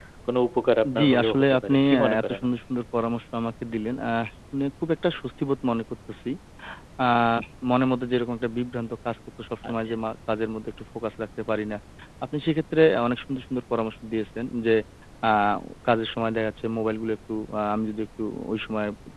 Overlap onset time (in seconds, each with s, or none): 1.0 s